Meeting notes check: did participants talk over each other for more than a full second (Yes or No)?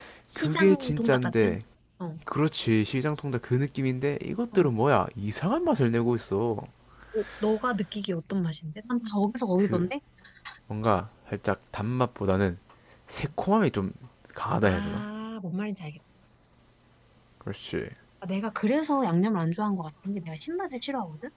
Yes